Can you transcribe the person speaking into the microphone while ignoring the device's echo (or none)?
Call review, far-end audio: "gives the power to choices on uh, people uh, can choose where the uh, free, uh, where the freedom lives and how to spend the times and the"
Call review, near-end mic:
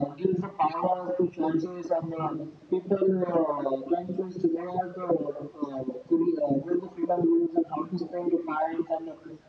none